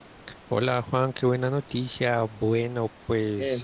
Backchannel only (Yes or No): Yes